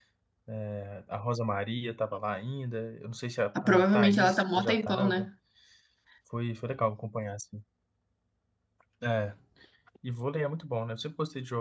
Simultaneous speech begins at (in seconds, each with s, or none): 3.5 s